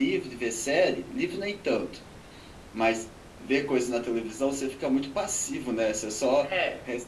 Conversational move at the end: listening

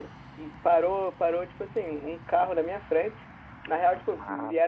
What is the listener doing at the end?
listening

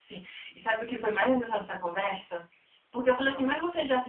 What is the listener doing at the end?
listening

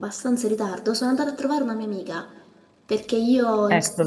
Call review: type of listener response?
listening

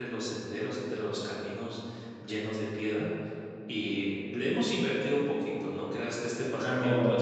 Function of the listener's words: taking over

